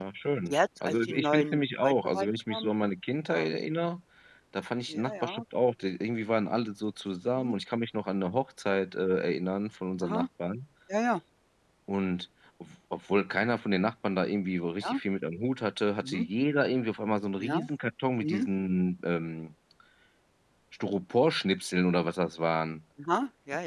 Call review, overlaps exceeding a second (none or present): present